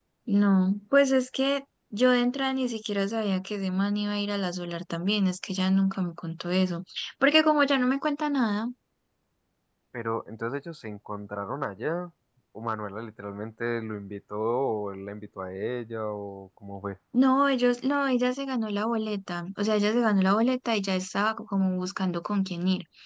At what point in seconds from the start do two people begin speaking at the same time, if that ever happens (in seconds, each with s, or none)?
none